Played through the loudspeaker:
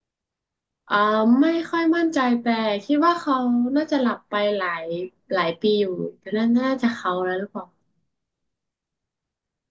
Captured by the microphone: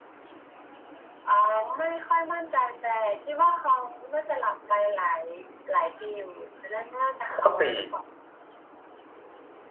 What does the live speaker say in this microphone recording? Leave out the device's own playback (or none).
ข้อสี่